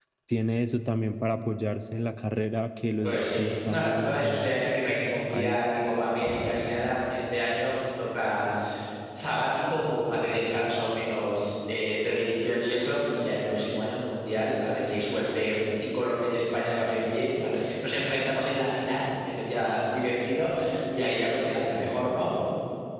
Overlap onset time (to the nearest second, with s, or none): 3 s